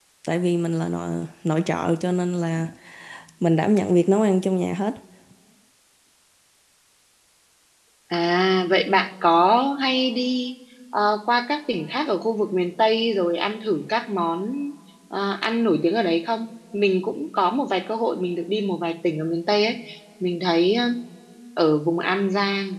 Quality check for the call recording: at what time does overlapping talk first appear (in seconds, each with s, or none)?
none